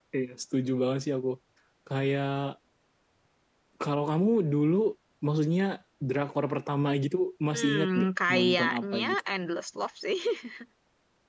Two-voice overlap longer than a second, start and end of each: 7.5-9.2

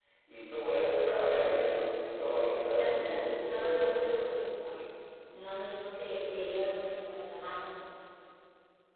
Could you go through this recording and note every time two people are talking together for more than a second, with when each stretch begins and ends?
2.5-4.1

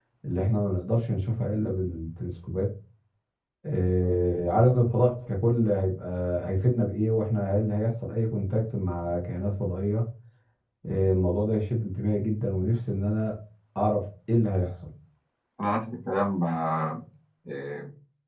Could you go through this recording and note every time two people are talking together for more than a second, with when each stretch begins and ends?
none

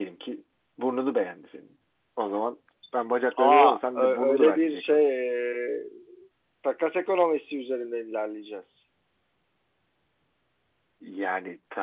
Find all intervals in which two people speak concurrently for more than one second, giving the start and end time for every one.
3.4-5.1

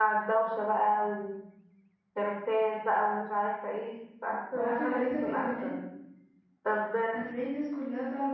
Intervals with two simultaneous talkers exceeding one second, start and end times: 4.5-5.8

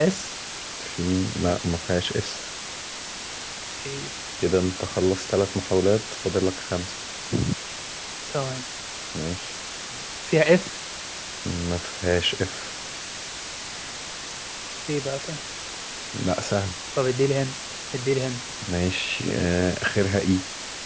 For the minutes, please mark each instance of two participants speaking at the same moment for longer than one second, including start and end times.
none

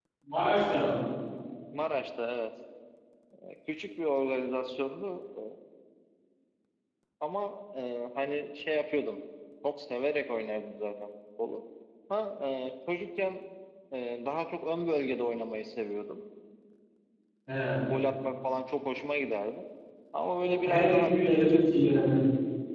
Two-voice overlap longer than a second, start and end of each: 20.4-21.6

